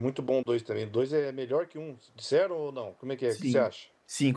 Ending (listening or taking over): taking over